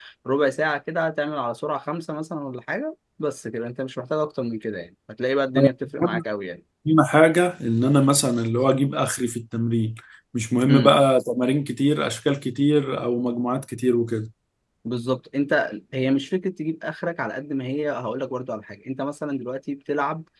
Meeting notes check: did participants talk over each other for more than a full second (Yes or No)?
No